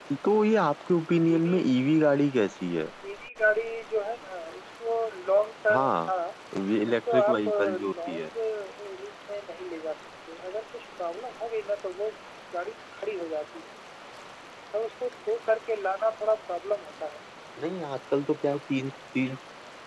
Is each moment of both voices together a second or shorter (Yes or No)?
No